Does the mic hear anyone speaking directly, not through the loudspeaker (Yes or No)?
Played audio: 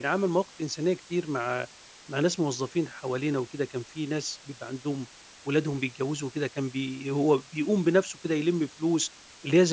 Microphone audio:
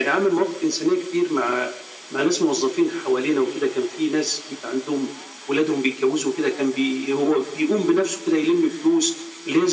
No